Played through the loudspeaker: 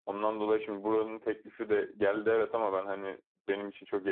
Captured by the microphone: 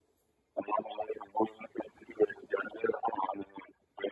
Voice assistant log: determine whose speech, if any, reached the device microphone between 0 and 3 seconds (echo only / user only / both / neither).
echo only